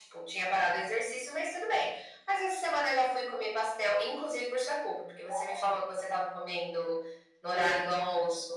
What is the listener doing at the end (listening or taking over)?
listening